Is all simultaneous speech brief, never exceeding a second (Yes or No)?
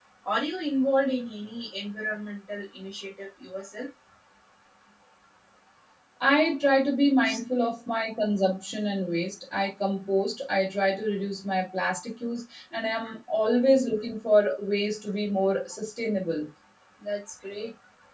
Yes